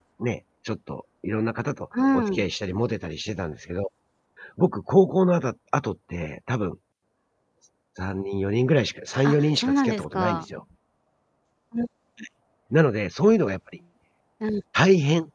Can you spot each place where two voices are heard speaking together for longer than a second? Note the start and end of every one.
9.2-10.4

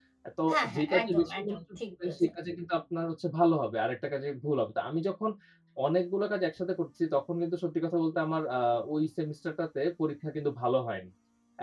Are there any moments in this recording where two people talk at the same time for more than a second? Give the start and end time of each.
0.5-2.3

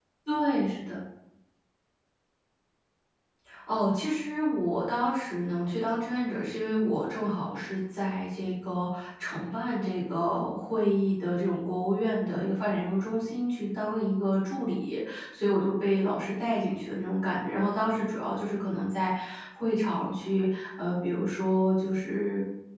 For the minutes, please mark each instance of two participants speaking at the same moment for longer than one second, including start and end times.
none

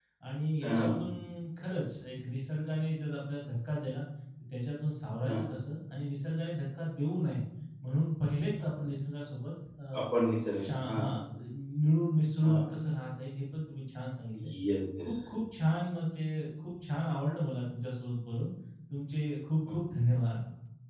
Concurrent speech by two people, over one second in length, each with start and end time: none

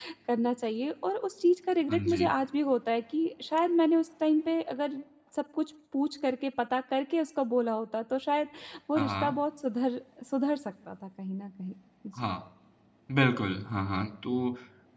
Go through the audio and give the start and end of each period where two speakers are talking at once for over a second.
none

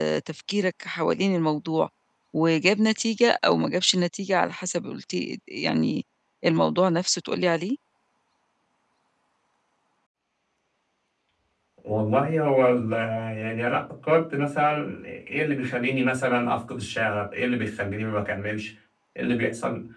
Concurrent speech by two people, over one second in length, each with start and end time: none

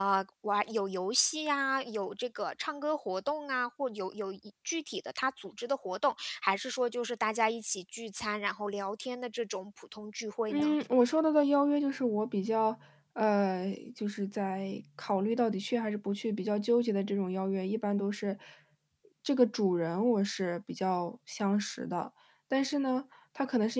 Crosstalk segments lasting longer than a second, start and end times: none

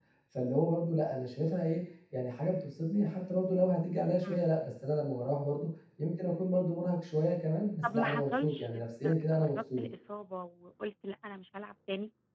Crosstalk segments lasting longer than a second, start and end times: 7.8-9.8

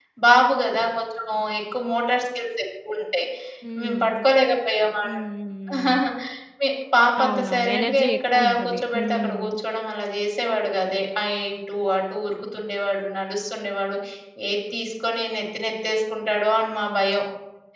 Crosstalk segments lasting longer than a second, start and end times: 7.2-9.6

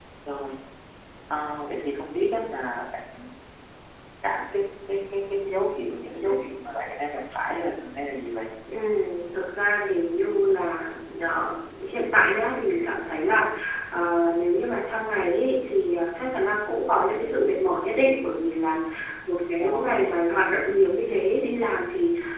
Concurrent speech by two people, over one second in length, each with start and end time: none

